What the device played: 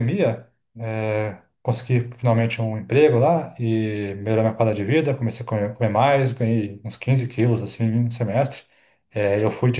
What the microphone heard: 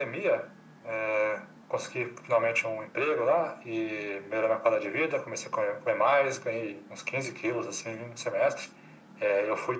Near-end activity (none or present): none